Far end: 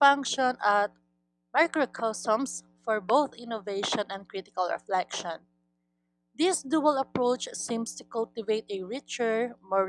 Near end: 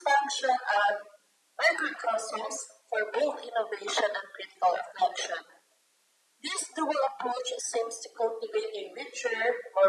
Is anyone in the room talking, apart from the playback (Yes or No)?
No